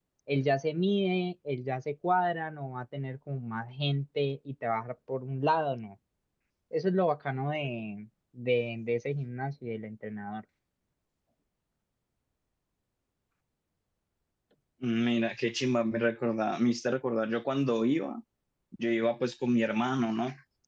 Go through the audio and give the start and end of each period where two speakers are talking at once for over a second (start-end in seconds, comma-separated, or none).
none